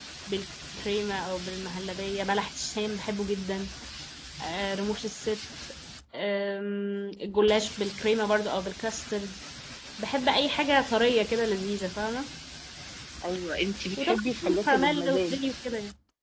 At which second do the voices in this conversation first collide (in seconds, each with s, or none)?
14.0 s